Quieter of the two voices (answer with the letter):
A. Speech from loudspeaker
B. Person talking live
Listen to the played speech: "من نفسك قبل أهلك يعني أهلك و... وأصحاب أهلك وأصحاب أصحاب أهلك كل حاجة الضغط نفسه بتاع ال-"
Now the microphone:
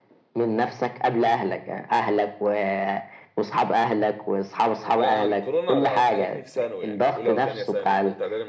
B